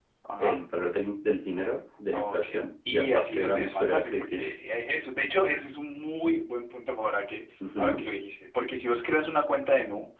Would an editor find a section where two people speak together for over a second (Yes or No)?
Yes